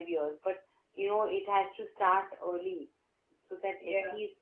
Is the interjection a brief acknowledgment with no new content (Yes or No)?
Yes